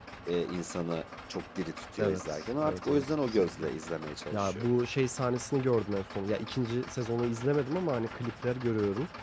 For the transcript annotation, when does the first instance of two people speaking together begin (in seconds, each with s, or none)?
2.0 s